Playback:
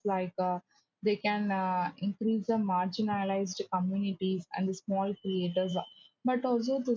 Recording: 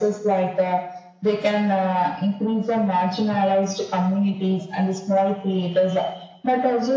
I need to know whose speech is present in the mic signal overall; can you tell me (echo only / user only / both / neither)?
echo only